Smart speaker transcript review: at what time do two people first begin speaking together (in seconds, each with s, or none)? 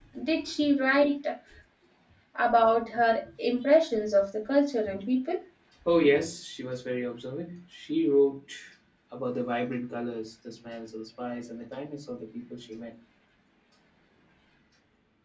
none